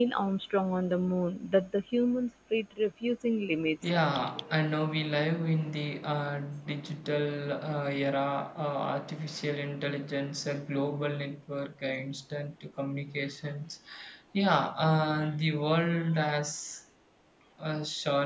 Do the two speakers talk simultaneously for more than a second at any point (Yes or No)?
No